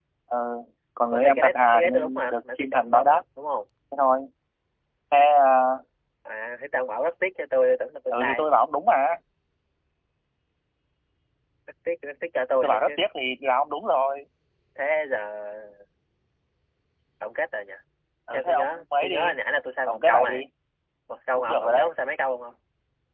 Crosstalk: present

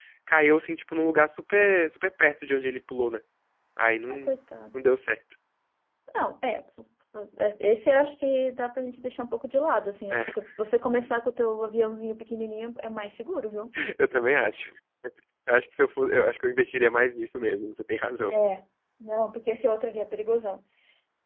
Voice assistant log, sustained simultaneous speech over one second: none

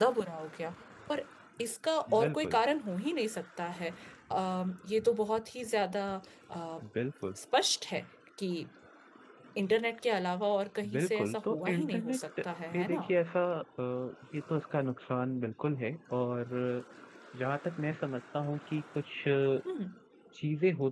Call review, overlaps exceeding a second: present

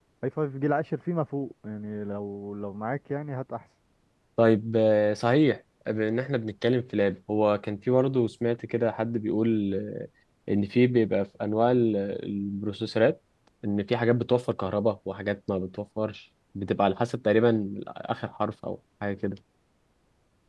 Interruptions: none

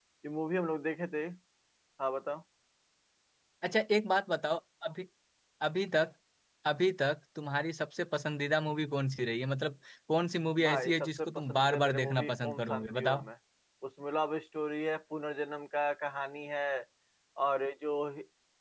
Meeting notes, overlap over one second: present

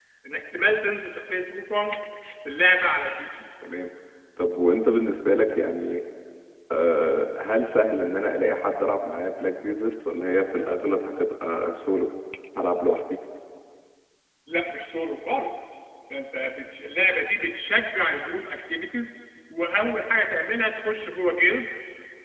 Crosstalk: none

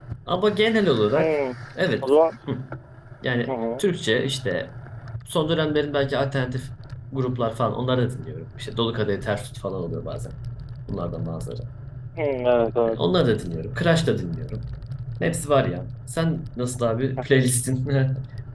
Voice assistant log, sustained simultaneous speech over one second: none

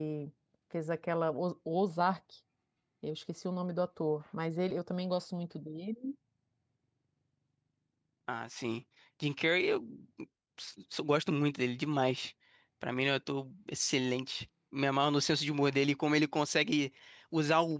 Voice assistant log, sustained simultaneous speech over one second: none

